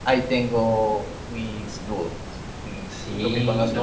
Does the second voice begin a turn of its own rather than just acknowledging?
Yes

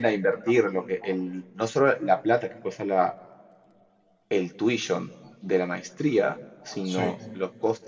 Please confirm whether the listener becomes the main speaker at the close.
No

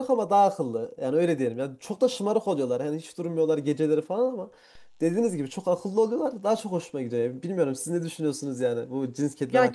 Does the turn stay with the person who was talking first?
No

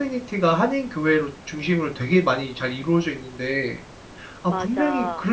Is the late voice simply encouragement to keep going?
Yes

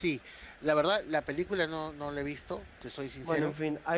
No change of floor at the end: No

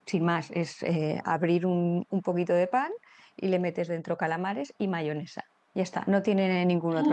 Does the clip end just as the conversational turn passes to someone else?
Yes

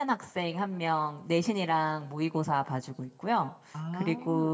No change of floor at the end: Yes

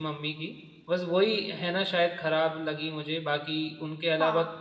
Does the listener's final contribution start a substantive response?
No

